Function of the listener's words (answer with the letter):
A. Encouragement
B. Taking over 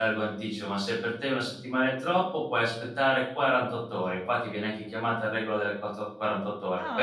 B